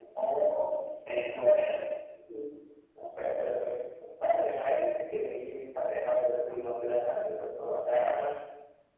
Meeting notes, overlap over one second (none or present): none